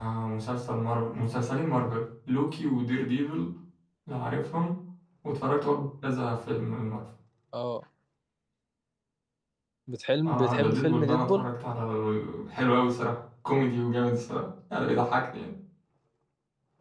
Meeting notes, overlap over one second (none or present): present